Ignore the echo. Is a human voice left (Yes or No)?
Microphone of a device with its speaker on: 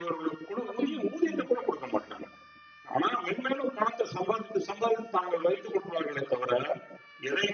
Yes